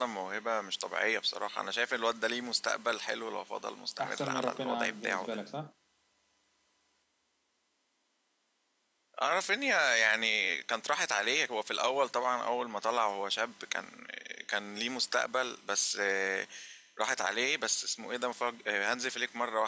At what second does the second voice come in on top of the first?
4 s

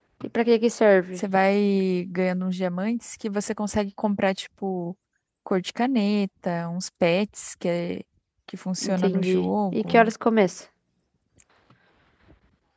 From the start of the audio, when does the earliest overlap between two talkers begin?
9 s

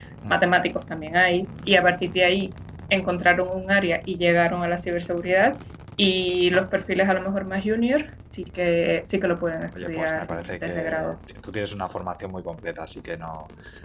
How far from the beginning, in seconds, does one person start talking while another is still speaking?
10 s

